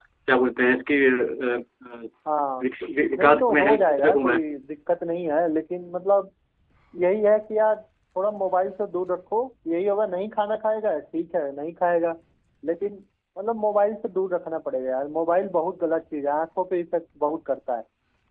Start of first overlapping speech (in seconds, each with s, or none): 3.2 s